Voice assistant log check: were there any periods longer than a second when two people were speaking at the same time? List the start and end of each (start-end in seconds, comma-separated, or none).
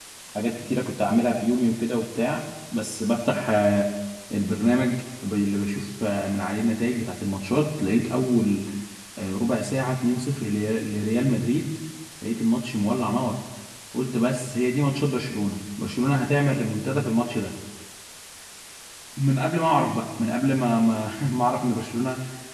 none